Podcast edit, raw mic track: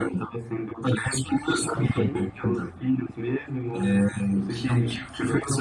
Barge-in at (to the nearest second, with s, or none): 2 s